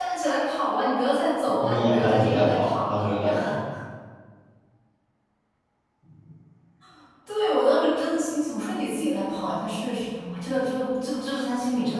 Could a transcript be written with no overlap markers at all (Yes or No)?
No